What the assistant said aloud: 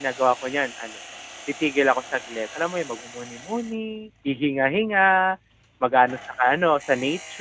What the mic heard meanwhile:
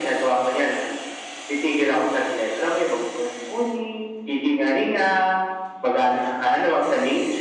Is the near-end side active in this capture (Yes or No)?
No